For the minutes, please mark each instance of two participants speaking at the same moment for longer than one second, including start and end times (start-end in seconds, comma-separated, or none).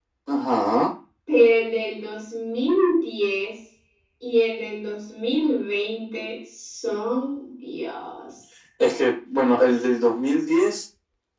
none